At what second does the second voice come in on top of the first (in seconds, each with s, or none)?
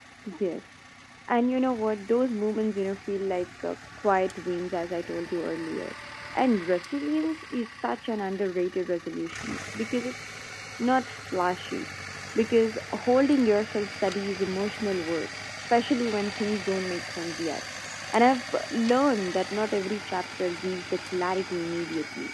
none